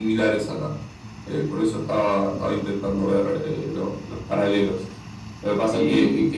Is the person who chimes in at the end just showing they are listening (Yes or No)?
Yes